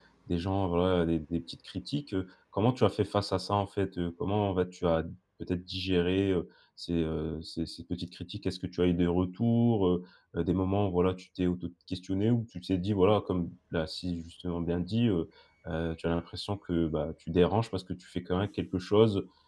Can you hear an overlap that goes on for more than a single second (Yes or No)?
No